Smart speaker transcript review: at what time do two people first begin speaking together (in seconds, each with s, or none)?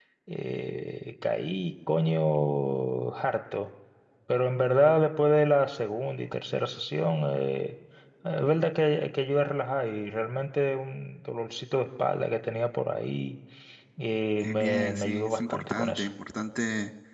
14.4 s